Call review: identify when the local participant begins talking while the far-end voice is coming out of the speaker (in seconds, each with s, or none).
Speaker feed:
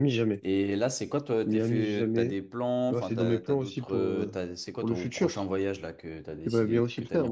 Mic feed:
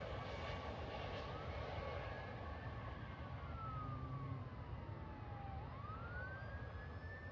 none